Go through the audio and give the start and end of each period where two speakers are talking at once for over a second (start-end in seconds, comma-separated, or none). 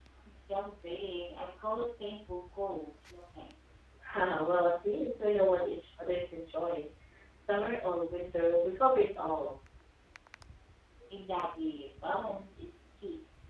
none